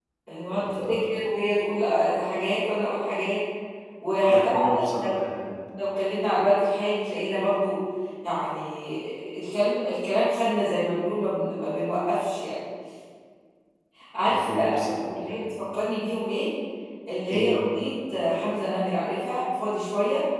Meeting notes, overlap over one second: present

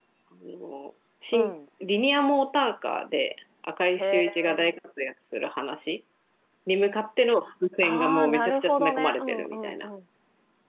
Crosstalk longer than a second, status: present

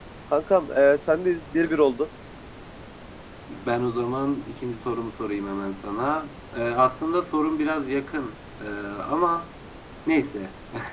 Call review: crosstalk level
none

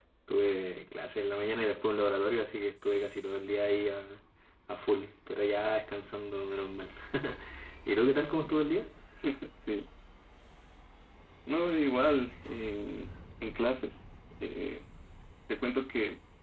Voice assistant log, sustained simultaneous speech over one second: none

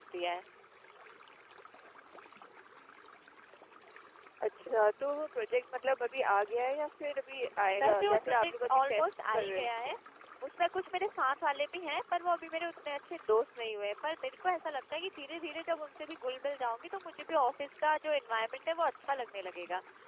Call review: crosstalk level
present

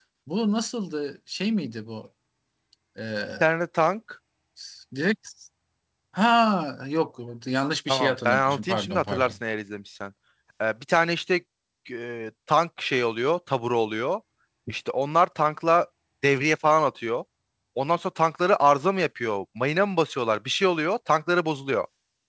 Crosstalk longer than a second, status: present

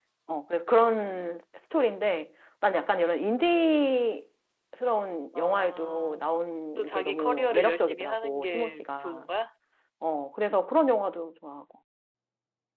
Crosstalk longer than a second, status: present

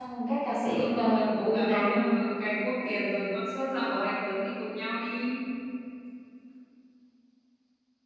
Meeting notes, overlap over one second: present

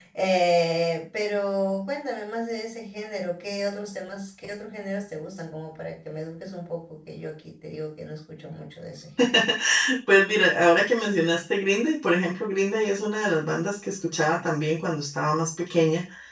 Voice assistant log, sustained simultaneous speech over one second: none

